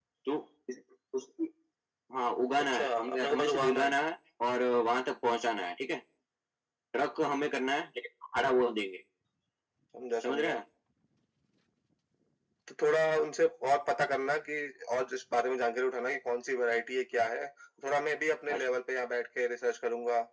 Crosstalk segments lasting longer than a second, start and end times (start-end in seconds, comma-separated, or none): 2.7-4.0